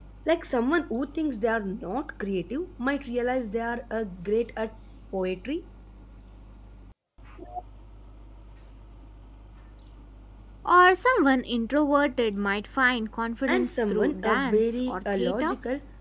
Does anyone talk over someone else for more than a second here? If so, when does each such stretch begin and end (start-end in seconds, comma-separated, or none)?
13.5-15.5